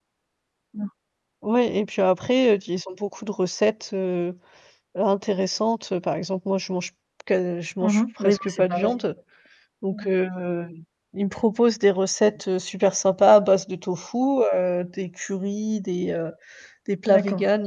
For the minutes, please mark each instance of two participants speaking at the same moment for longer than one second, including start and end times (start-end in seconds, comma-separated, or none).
7.8-9.0